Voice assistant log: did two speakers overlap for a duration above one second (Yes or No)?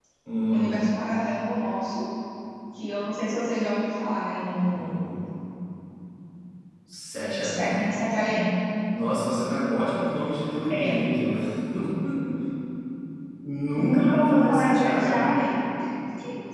Yes